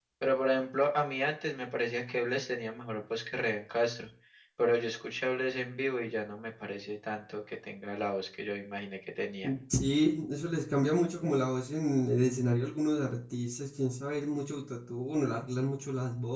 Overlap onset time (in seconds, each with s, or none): none